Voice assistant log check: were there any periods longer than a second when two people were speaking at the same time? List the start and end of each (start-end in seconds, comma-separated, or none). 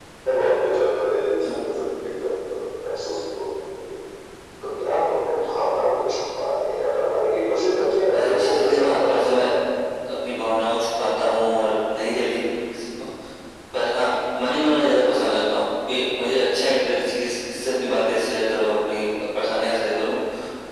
8.1-9.4